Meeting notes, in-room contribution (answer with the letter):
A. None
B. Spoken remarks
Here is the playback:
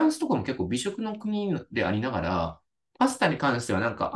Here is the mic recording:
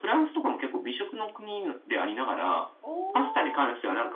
B